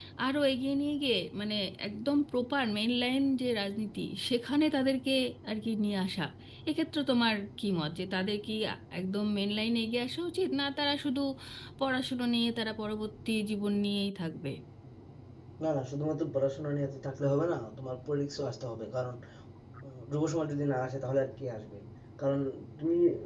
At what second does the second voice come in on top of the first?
none

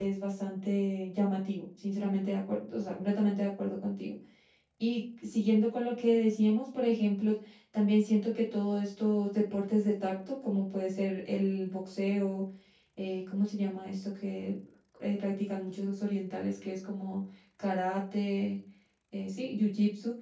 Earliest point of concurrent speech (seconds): none

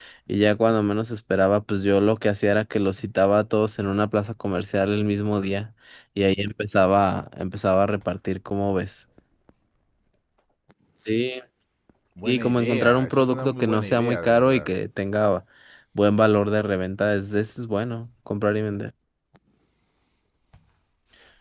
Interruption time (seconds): 12 s

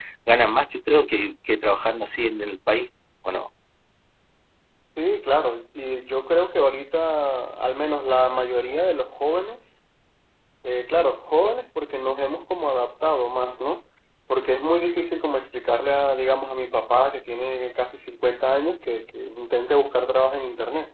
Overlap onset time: none

